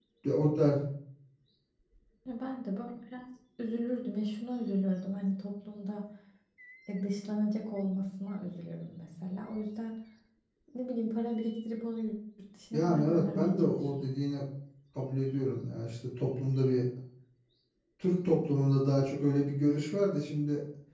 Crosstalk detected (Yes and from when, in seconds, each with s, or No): Yes, from 12.7 s